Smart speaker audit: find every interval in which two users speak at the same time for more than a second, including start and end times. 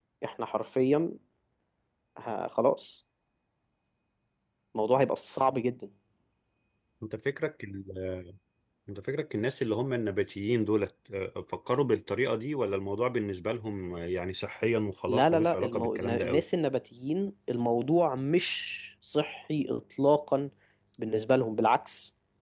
15.1-16.4

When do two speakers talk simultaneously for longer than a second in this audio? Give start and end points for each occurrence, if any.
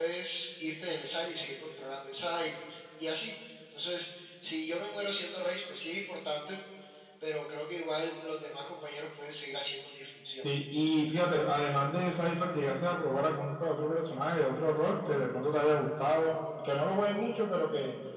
none

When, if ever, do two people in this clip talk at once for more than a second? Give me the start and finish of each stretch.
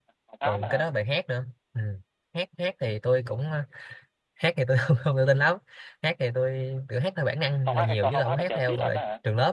7.7-9.0

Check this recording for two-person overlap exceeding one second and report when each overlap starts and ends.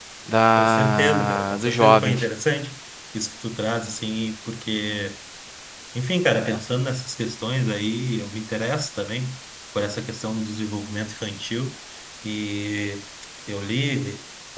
0.6-2.2

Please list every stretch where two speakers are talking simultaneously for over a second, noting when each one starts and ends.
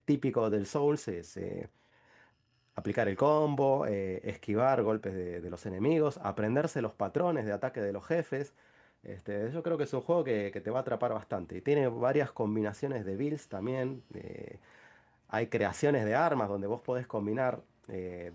none

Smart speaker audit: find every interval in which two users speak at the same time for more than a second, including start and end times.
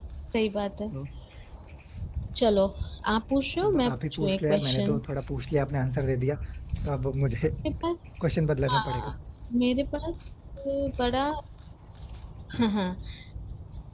3.6-5.0

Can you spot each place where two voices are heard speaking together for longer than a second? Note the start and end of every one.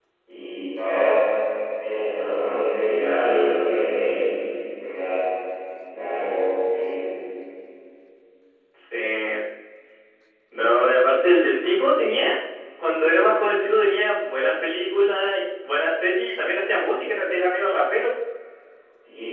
none

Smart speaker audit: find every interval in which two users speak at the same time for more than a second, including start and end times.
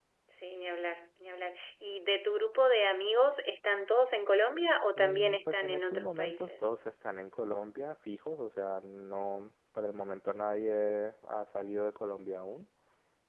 5.0-6.7

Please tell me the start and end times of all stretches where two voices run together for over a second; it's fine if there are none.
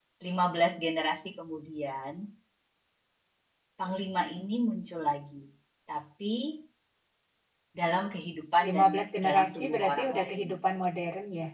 9.2-10.4

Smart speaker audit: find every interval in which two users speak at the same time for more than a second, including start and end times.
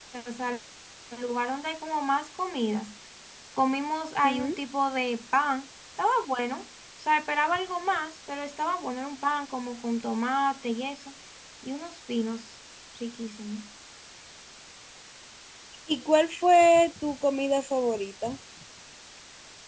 none

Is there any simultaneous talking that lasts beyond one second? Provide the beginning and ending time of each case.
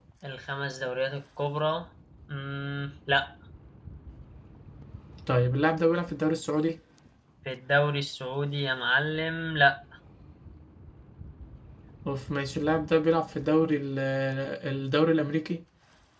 none

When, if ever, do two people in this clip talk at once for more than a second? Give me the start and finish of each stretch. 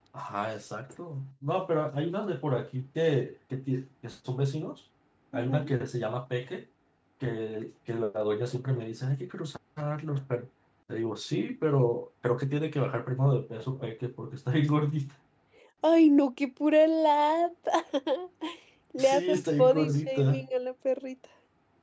19.0-20.4

